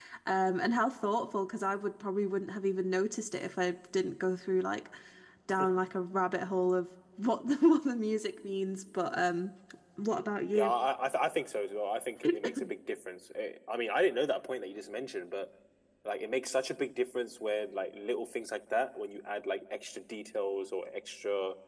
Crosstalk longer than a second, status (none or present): none